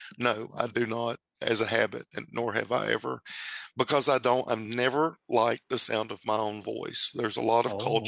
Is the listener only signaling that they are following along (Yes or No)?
Yes